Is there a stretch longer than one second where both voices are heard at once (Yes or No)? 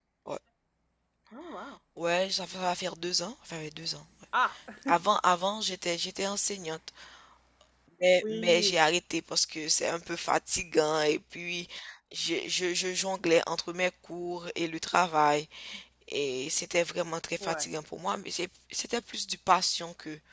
No